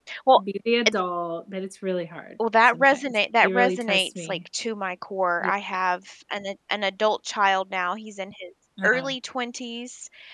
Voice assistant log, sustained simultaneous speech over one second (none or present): present